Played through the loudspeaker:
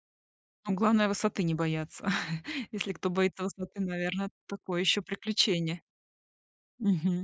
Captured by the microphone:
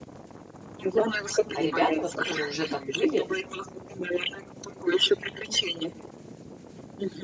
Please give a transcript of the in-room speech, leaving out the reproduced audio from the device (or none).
А ребята, вот которые уже там были,